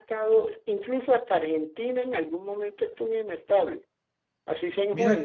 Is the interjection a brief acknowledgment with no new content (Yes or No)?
No